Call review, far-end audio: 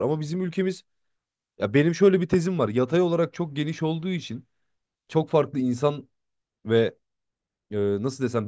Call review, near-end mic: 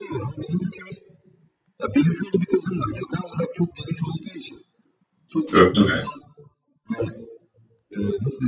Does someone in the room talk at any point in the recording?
Yes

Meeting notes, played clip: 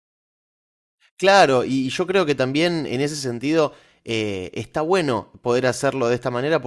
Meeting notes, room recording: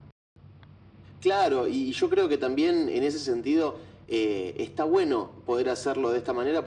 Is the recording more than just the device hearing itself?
No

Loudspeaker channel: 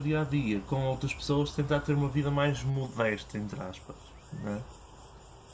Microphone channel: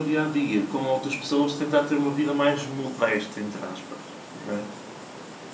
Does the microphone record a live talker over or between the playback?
No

